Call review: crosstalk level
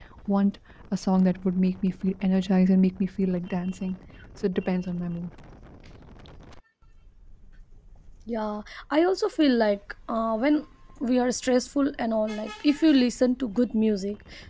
none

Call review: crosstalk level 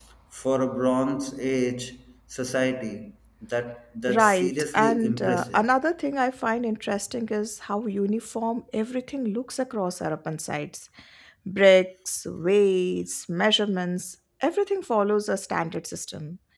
present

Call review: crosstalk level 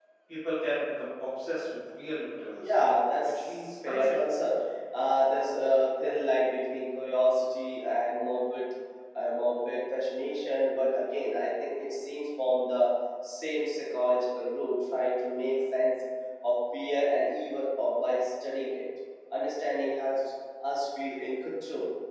present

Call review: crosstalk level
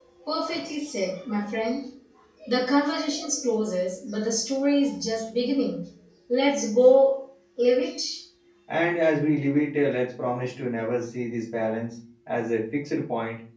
none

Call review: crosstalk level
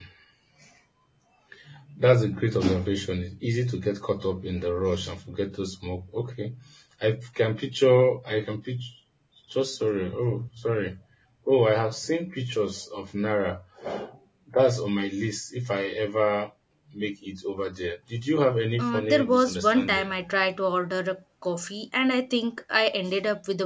present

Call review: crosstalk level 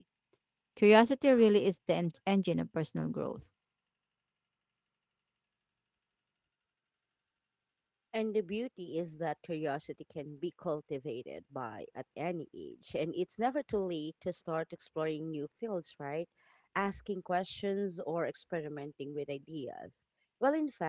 none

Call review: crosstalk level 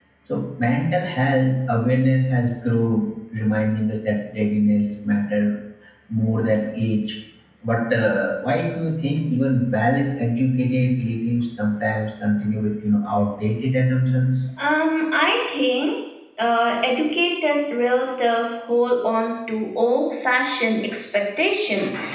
none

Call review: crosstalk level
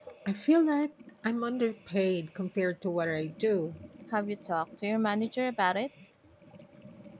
none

